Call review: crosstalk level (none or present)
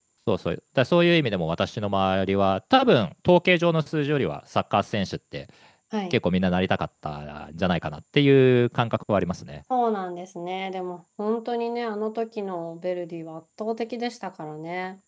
none